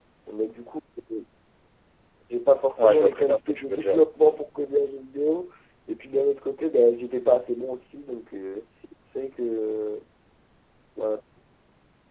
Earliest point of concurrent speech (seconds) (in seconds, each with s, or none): 2.8 s